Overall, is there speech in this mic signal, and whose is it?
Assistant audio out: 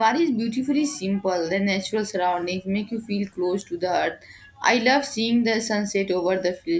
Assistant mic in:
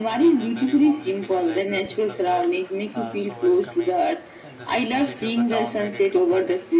both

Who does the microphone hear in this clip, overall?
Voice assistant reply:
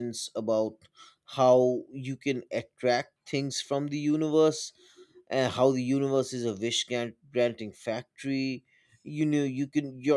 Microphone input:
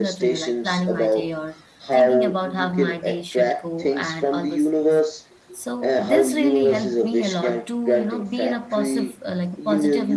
both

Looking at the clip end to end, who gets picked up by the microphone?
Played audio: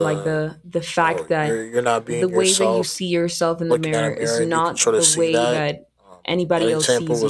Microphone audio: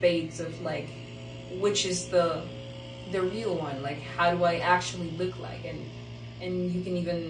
user only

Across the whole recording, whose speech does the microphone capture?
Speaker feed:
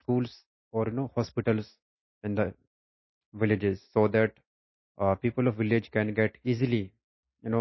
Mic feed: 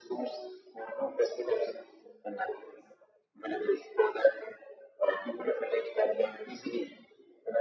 echo only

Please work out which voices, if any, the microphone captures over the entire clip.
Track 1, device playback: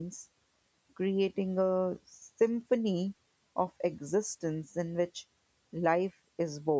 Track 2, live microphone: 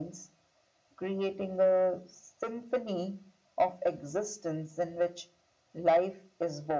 echo only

